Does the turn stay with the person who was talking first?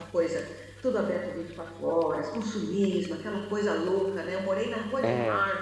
Yes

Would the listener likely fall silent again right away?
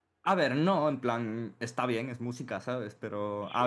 Yes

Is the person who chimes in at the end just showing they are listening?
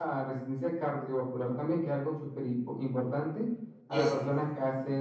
Yes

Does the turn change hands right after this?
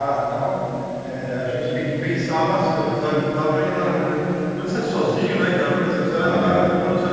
No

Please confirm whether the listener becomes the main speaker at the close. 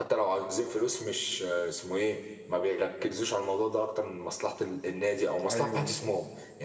No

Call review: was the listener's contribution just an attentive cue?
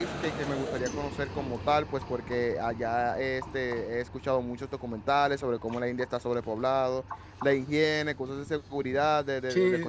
No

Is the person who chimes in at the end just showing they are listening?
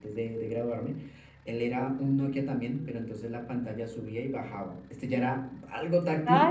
No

